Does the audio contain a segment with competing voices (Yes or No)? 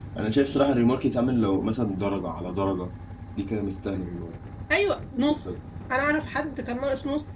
No